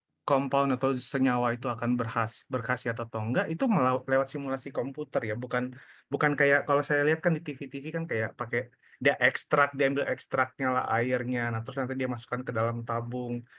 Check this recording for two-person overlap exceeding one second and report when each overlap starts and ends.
none

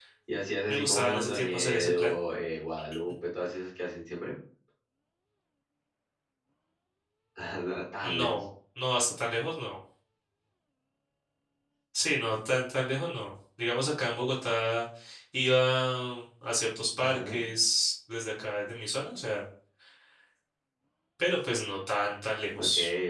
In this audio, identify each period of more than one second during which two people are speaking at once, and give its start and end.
0.7-2.1

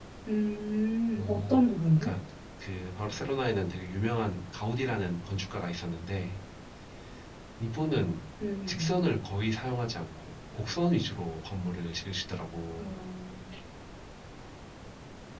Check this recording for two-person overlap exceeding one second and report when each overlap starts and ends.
none

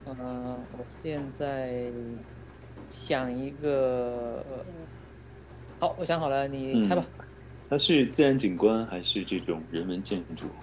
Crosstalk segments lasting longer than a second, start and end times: none

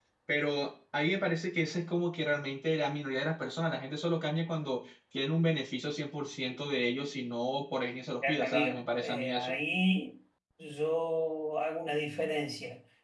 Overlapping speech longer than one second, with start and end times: 8.3-9.6

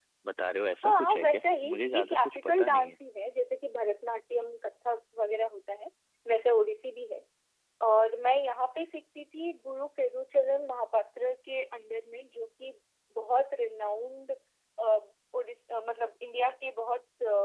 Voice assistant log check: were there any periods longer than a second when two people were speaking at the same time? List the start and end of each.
0.8-3.0

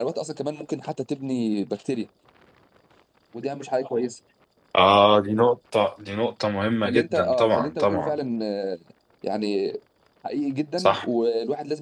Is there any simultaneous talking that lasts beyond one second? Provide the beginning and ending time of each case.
6.8-8.1

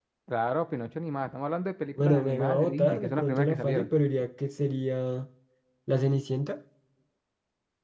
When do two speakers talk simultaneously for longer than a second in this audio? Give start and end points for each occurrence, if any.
2.0-3.9

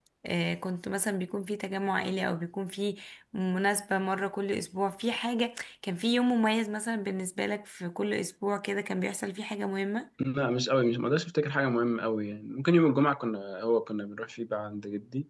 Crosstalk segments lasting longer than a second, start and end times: none

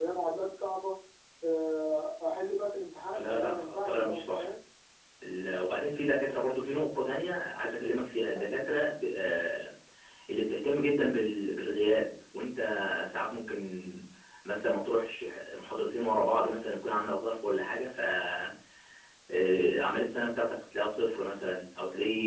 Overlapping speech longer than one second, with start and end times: 3.1-4.5

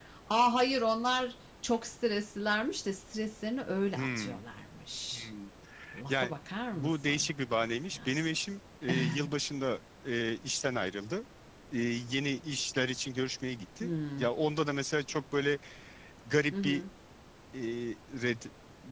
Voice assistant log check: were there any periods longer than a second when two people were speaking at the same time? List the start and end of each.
6.7-8.2

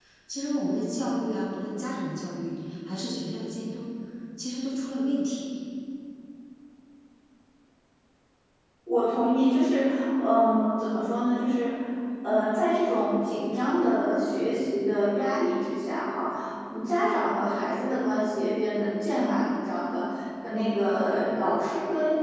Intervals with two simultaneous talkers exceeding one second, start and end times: none

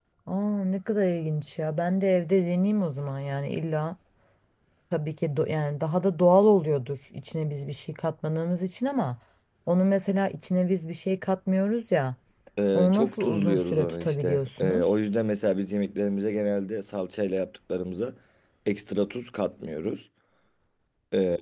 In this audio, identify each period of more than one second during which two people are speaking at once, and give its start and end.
12.7-14.8

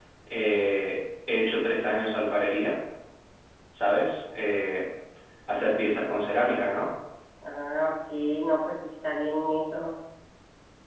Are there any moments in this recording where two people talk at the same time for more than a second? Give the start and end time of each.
none

